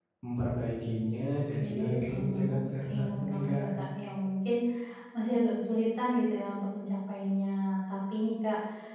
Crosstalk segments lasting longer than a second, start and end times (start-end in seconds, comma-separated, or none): 1.6-3.7